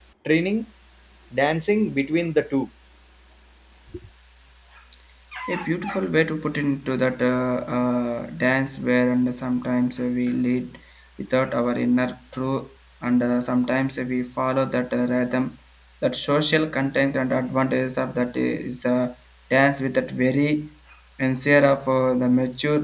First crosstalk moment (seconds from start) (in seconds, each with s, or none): none